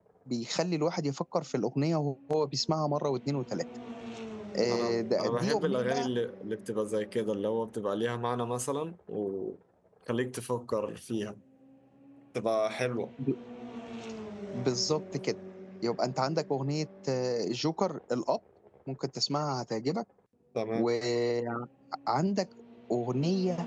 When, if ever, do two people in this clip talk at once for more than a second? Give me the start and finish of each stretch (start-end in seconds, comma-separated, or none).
4.7-6.1